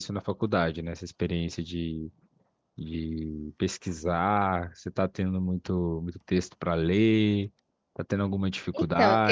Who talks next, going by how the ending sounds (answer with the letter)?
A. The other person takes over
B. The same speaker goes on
A